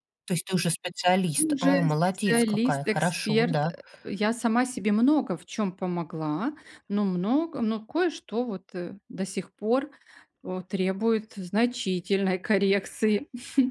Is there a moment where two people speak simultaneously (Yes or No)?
Yes